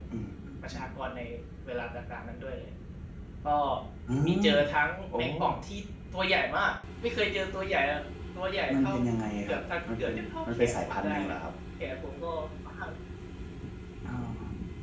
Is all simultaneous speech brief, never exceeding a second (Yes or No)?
No